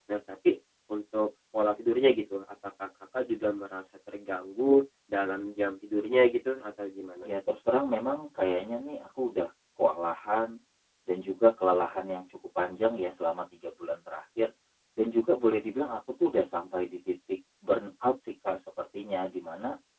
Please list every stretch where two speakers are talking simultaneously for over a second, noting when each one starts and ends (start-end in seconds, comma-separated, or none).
none